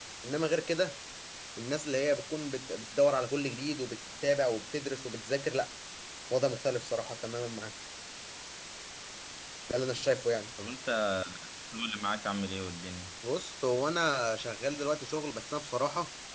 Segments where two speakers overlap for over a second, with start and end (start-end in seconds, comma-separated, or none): none